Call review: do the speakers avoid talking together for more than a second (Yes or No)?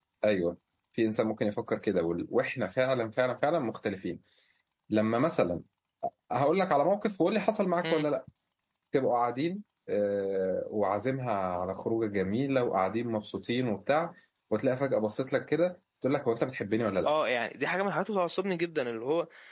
Yes